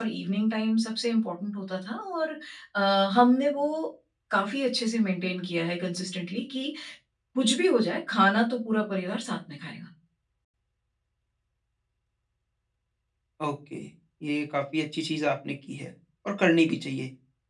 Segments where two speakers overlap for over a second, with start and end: none

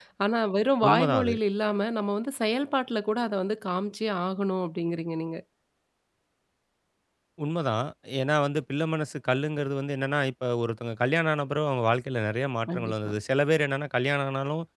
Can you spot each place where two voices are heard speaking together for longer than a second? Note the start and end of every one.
none

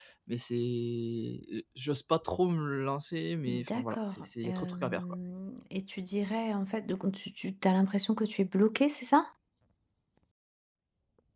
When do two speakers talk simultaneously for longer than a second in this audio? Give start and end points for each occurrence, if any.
3.5-5.0

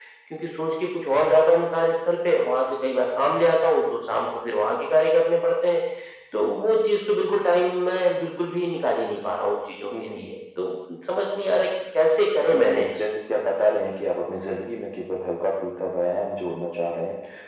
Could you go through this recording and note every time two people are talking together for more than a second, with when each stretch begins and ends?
none

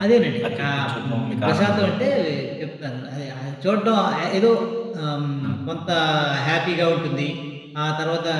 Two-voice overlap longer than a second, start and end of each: 0.6-1.9

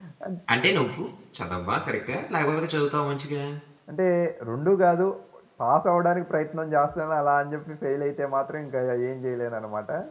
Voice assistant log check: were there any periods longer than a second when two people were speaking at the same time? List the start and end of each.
none

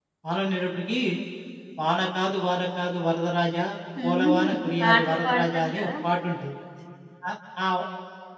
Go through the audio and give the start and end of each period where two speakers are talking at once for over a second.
4.0-5.9

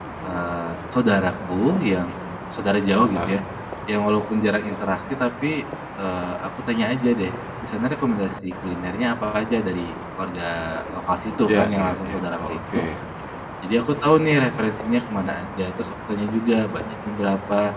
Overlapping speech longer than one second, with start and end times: 11.5-12.8

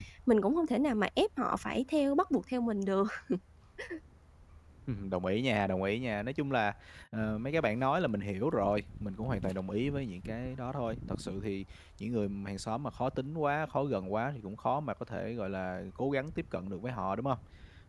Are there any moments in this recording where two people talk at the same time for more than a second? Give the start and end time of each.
none

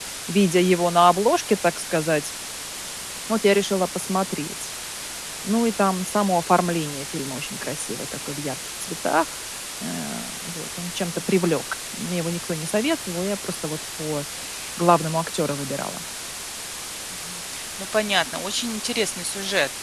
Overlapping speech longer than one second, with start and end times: none

